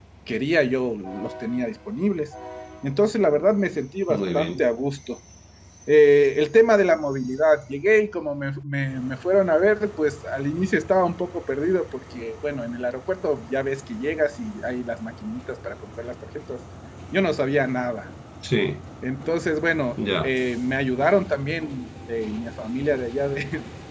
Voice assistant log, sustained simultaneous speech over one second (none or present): none